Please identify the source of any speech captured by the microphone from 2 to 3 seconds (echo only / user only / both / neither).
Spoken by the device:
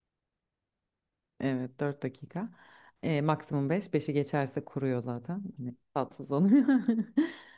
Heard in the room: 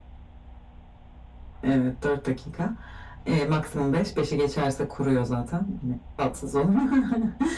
echo only